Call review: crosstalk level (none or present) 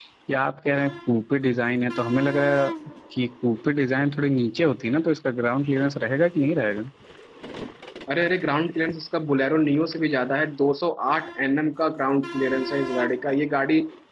none